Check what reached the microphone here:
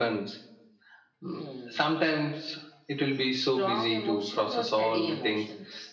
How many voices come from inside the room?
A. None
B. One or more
A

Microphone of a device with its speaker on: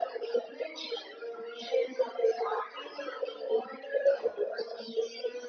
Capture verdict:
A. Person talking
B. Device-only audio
B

